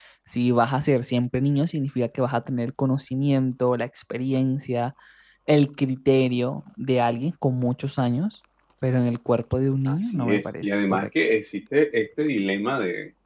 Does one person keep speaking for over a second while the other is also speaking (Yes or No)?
Yes